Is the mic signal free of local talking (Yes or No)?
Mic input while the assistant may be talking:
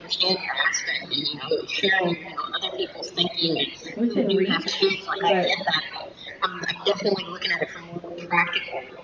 No